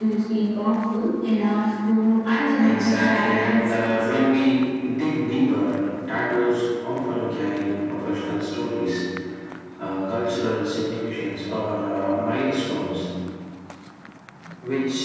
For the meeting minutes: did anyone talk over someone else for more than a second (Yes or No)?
Yes